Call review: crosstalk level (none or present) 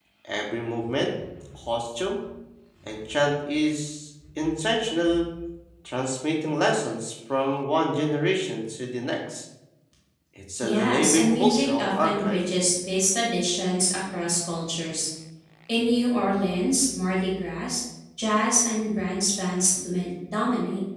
present